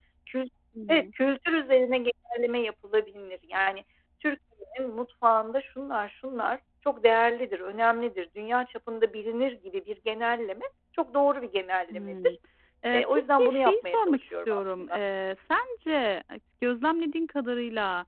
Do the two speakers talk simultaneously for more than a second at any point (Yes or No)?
Yes